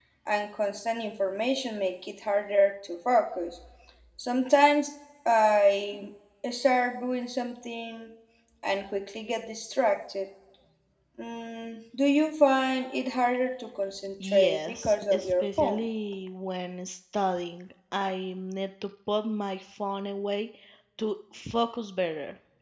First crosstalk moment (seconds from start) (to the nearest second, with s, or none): 14 s